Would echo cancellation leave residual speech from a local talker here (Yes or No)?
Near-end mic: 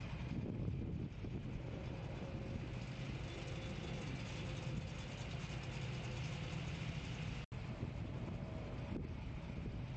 No